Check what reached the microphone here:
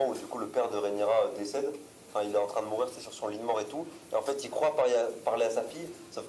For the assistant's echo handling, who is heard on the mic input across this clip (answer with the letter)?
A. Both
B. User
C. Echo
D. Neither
C